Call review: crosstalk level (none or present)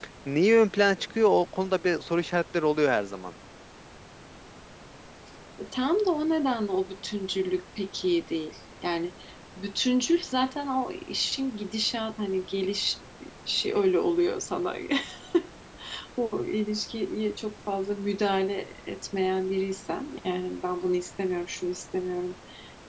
none